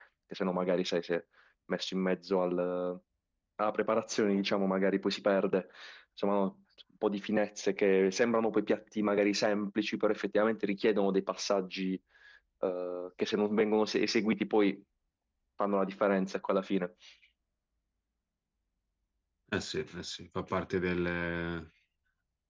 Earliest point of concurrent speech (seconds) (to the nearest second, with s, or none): none